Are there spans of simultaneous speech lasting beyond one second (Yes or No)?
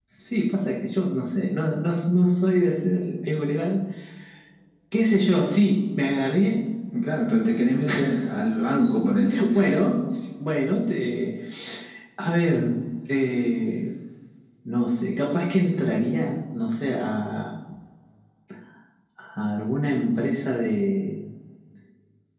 No